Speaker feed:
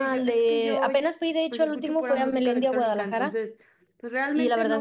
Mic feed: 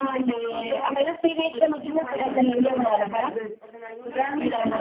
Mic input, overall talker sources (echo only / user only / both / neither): both